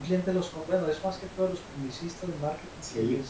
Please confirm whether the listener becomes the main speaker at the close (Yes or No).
No